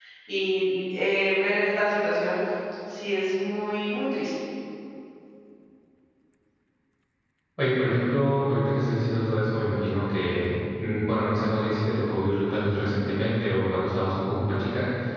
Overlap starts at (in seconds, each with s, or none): none